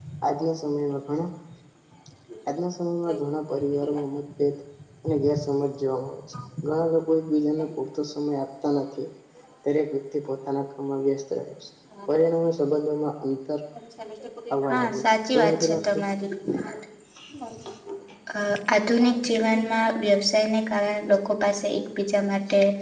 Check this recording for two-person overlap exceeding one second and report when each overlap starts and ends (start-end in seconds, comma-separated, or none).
14.7-16.1